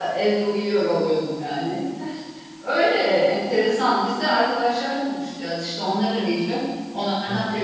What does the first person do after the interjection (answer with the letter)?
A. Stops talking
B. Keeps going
B